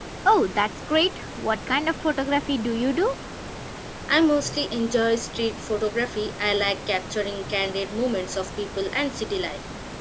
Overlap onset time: none

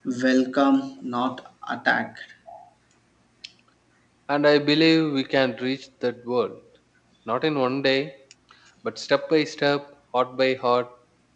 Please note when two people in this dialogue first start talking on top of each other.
none

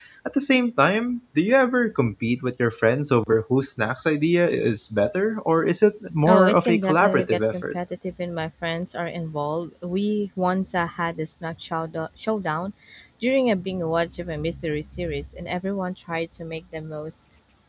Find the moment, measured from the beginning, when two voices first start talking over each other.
6.2 s

